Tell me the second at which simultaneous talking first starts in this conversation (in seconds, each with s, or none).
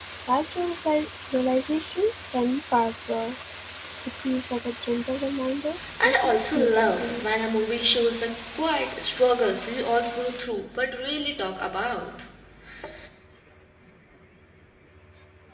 6.0 s